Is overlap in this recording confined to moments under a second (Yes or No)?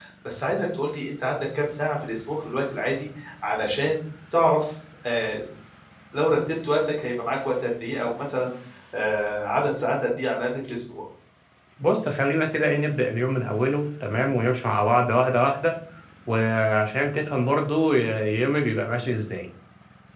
Yes